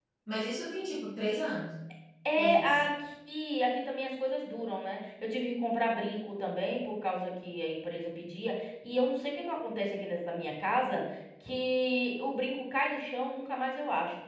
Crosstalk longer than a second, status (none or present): none